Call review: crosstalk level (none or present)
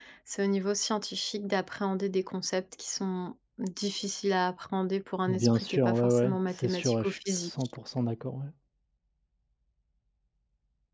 present